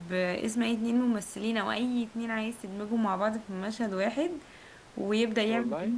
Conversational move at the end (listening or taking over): listening